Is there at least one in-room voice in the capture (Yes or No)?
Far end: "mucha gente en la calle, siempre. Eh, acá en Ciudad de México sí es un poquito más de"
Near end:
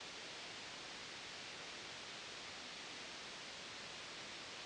No